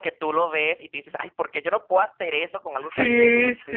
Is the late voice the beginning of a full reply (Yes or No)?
Yes